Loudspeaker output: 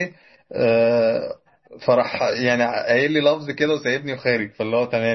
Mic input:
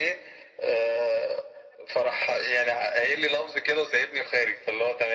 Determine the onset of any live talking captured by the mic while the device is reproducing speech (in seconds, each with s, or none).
none